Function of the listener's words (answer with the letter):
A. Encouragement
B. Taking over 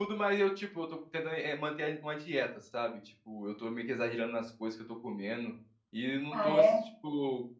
A